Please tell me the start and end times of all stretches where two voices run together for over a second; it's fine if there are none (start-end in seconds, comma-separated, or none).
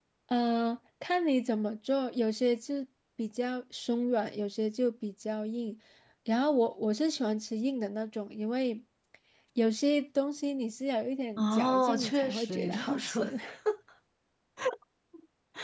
11.4-13.3